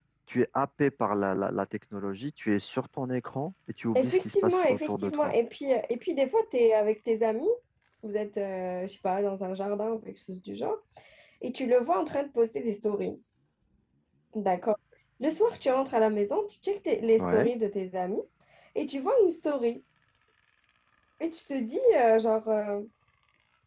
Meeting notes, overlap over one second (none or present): present